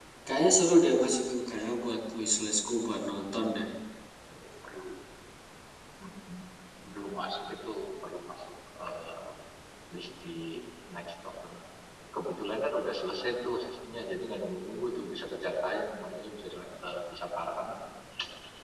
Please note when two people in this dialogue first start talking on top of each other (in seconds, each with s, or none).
none